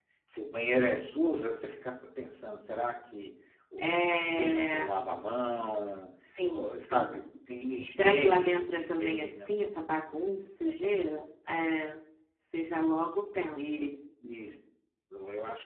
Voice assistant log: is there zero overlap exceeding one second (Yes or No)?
No